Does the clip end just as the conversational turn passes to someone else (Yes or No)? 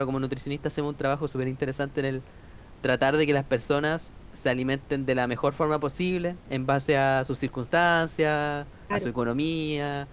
No